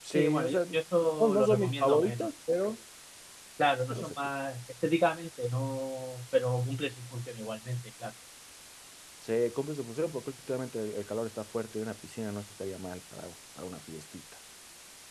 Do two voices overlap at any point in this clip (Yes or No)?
Yes